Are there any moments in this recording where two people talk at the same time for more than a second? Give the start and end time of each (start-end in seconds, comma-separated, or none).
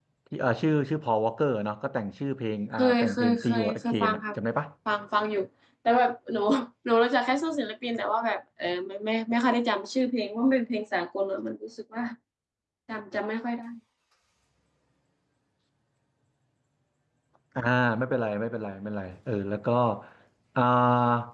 2.8-4.2